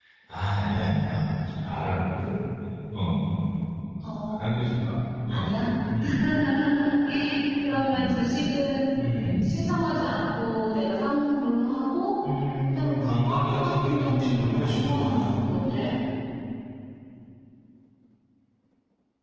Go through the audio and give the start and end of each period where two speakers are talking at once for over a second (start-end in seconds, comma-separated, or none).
12.6-15.3